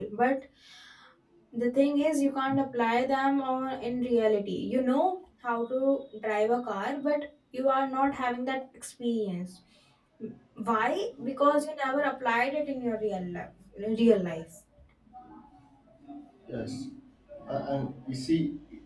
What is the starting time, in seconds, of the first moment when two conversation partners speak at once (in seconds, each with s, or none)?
none